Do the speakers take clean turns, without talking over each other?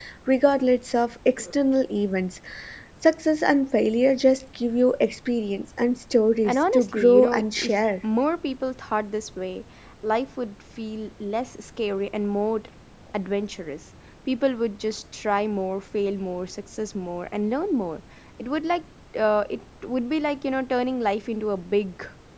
No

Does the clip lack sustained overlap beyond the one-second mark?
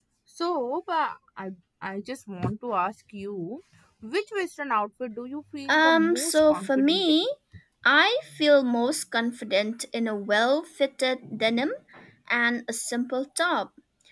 No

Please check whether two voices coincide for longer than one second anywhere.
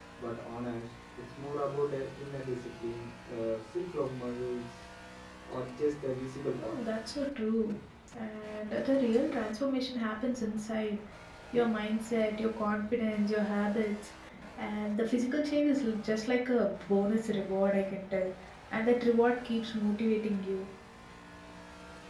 No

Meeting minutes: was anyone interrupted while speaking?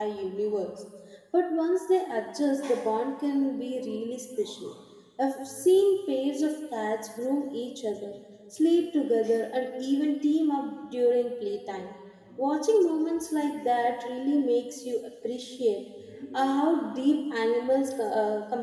No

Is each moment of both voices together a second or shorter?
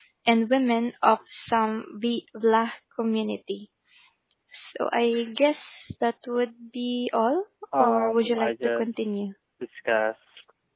No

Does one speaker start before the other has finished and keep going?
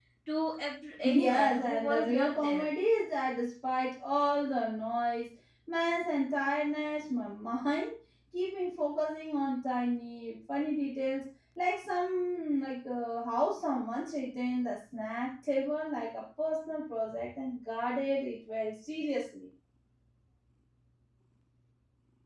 Yes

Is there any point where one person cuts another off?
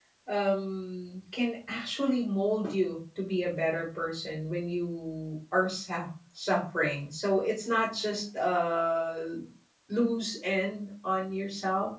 No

